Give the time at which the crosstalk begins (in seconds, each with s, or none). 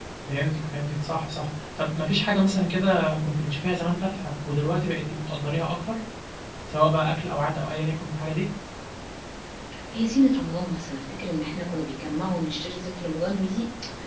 none